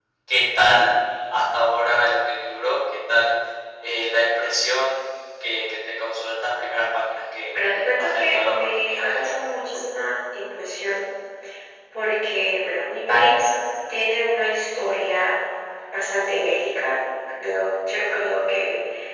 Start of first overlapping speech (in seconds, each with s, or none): 8.0 s